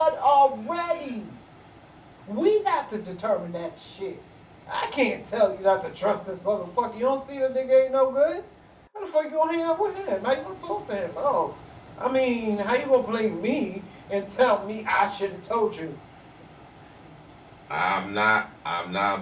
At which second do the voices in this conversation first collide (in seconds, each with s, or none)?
none